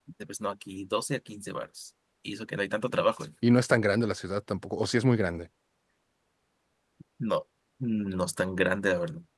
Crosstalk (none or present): none